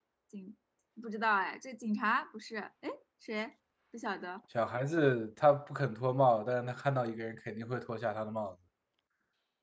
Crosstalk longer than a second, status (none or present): none